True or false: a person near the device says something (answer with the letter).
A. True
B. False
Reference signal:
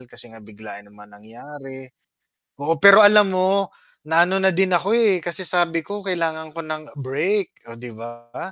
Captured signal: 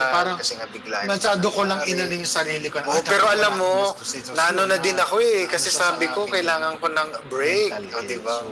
A